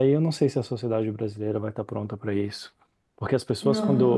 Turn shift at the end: No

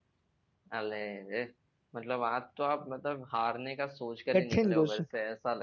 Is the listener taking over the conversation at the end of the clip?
No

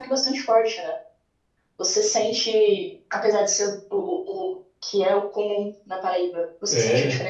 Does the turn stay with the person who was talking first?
Yes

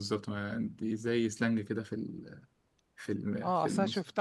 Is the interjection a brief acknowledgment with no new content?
No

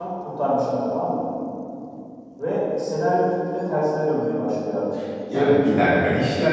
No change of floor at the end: No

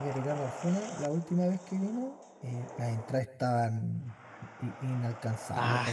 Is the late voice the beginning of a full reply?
Yes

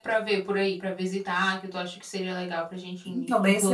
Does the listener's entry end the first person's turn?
Yes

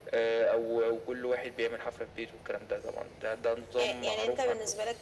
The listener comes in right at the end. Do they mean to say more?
Yes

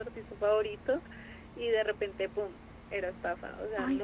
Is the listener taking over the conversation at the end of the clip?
Yes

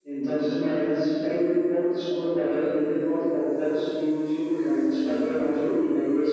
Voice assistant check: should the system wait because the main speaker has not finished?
Yes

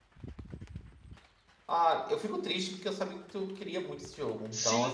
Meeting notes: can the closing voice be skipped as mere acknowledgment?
No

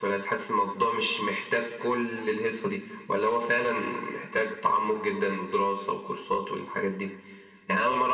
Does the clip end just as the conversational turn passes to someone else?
No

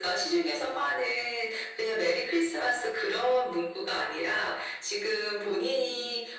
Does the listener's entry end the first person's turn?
No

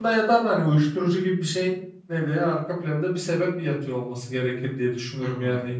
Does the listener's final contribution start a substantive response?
Yes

